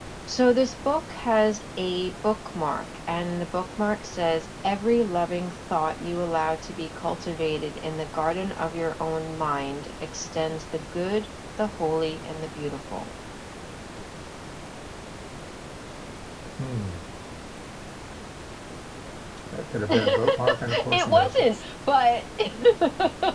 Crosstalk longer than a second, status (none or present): present